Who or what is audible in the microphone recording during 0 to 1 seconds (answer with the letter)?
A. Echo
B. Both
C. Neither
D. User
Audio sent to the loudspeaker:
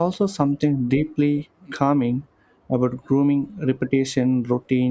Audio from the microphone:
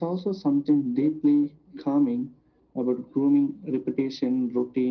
A